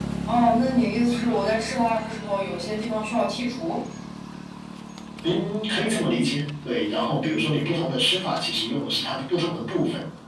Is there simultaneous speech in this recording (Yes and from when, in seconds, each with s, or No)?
No